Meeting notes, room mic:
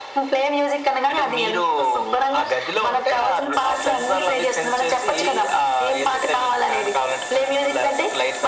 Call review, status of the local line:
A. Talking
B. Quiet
B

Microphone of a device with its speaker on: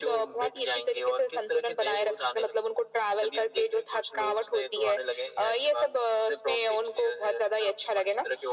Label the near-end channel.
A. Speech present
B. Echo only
B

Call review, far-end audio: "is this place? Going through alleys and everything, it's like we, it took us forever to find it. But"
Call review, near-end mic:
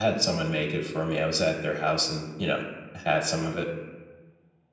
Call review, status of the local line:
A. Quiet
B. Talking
B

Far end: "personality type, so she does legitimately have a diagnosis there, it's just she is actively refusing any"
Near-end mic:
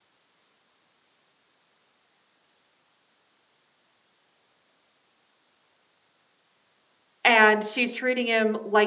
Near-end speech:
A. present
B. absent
A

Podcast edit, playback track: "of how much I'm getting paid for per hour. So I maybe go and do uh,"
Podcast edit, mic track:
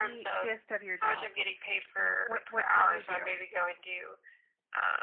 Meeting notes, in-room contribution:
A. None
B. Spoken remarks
B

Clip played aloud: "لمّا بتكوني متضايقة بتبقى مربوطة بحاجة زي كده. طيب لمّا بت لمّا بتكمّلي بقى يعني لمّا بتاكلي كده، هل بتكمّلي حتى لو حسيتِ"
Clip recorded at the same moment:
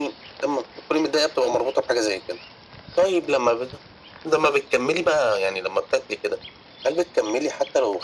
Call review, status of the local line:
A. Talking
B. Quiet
B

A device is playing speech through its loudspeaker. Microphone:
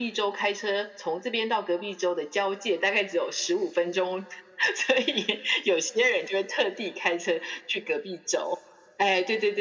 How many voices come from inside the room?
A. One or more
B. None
B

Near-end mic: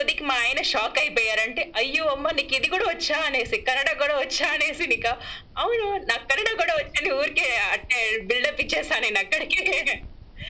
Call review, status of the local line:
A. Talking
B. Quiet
B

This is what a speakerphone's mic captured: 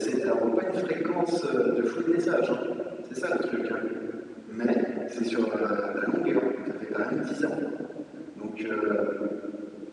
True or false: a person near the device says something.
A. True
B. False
B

